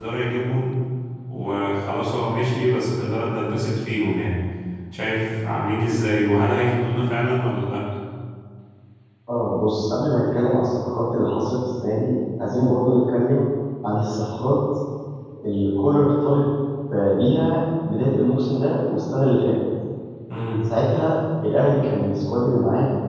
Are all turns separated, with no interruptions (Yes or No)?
Yes